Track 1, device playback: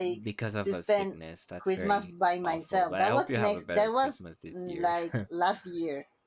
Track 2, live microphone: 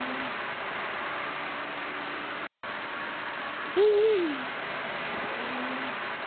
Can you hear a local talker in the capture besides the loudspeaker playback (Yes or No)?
No